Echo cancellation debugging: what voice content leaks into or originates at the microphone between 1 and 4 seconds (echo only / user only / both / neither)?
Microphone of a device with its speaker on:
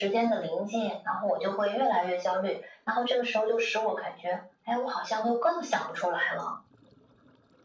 echo only